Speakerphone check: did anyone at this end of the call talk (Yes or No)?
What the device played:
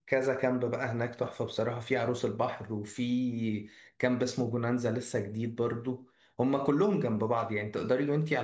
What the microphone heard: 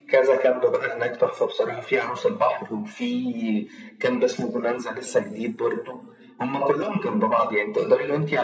No